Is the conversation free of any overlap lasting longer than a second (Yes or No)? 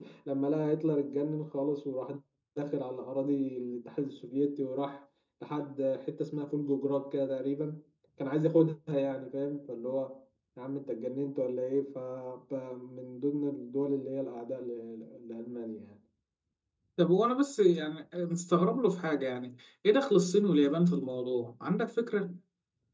Yes